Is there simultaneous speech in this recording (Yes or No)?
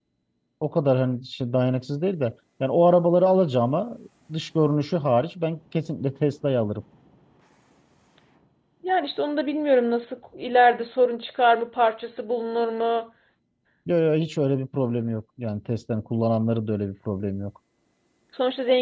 No